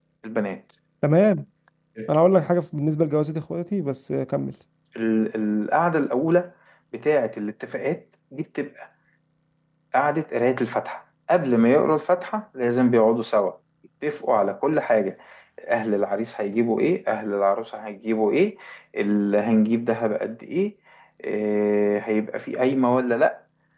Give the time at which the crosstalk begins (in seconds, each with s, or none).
none